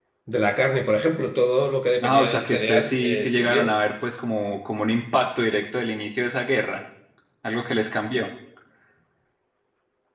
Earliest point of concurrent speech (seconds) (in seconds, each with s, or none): 2.0 s